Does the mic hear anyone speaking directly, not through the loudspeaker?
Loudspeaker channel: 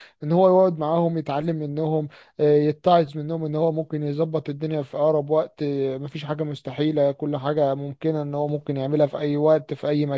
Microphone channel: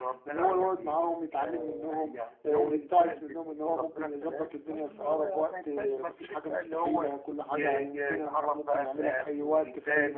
Yes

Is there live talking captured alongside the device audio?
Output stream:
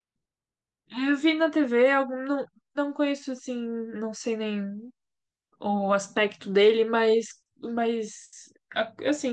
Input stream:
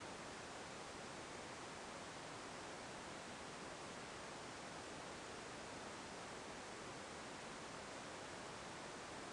No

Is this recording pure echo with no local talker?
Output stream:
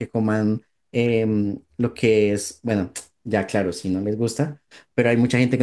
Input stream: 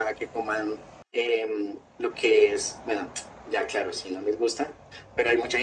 Yes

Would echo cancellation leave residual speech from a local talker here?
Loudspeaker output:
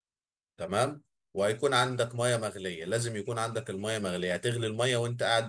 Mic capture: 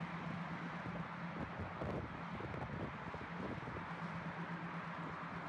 No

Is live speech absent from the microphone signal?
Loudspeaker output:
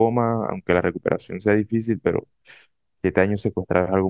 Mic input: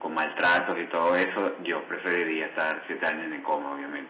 No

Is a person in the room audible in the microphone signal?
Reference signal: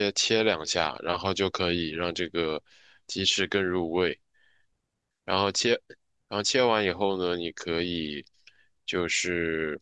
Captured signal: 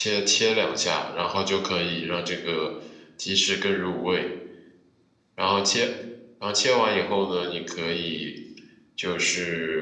No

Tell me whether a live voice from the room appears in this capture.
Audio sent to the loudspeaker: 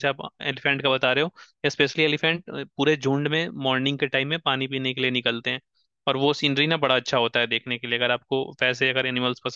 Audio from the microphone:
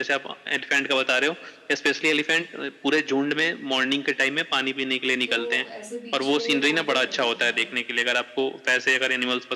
Yes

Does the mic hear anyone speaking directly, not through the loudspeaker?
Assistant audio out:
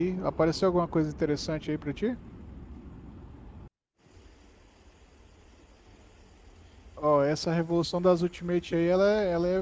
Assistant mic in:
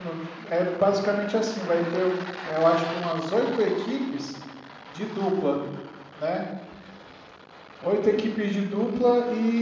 Yes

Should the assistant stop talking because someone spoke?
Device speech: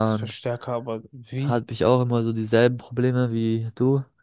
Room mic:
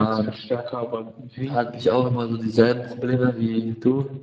No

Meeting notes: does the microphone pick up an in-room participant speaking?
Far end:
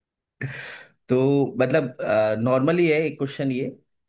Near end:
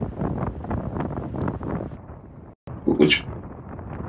Yes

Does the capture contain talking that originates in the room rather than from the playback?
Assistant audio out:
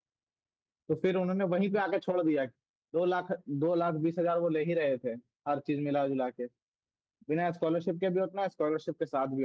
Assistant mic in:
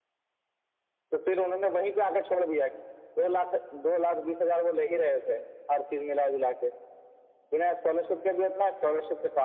No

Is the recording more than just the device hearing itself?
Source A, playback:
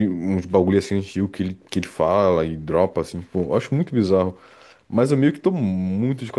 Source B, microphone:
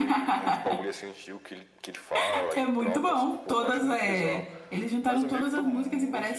Yes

